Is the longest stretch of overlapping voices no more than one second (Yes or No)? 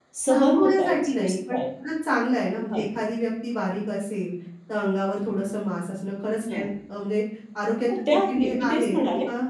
No